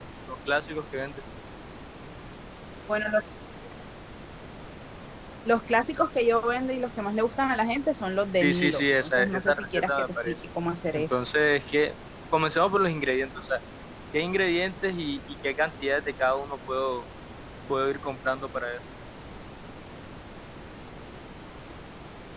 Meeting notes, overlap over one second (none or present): present